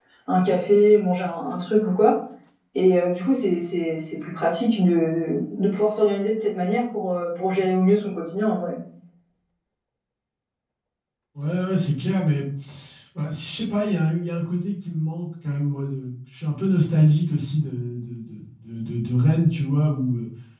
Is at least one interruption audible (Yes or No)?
No